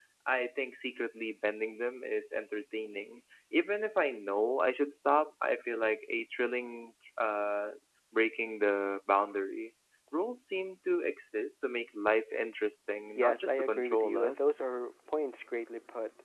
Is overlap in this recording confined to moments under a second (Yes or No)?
No